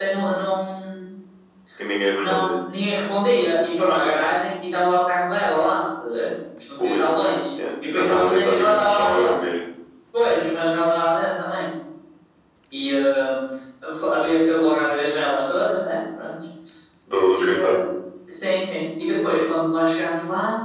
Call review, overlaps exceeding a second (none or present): present